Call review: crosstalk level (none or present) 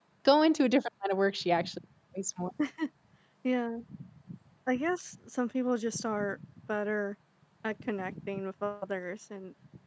none